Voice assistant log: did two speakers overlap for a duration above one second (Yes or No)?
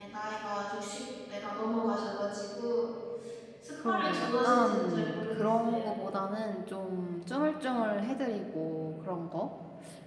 Yes